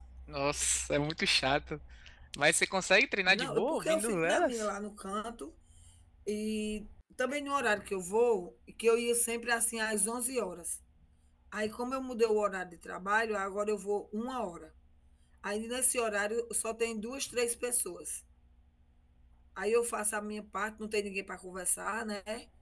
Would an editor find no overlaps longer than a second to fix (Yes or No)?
No